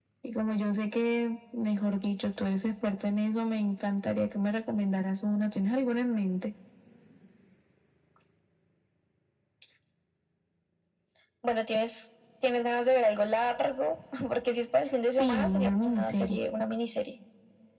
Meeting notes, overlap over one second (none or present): present